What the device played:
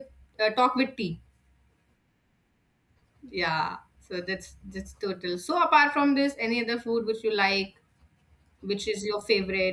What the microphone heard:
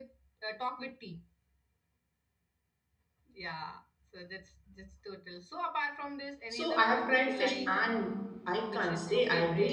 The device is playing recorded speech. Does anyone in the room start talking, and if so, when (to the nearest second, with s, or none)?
6 s